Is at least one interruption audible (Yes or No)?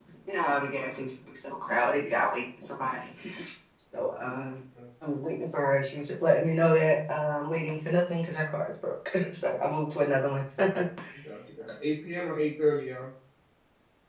No